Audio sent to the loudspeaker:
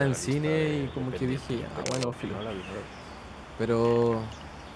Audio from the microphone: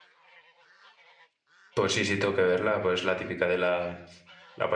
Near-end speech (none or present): present